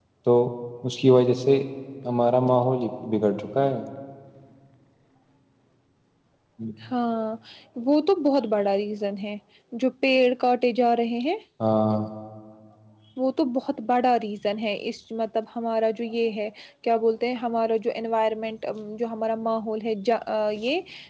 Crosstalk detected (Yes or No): No